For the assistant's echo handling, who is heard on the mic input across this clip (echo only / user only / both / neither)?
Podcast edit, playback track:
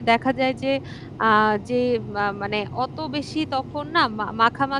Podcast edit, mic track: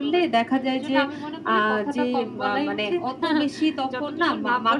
both